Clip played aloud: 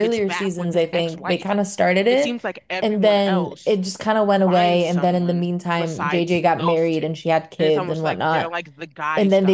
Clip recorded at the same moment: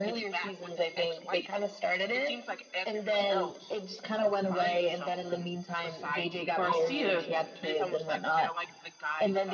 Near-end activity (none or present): present